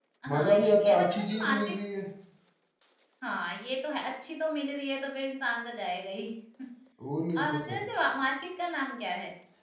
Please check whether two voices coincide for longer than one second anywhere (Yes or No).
Yes